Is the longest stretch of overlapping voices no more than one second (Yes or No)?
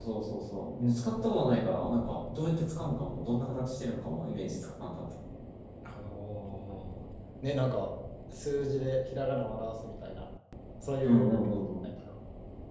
Yes